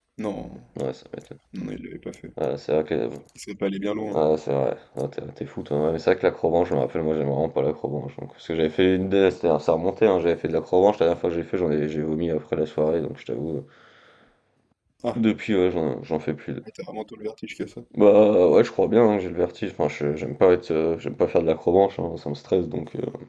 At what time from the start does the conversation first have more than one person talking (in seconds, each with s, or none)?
none